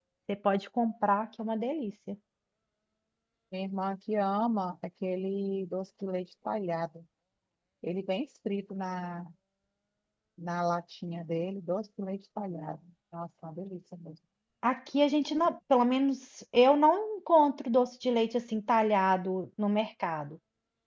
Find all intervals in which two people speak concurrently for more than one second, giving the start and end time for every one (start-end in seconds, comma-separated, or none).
none